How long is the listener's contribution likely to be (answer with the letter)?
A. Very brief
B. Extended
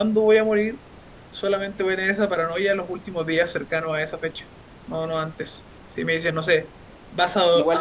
B